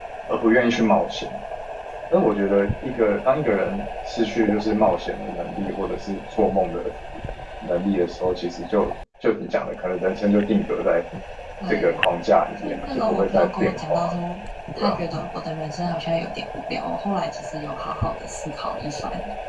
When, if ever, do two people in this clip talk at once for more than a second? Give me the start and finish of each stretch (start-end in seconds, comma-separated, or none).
12.6-14.2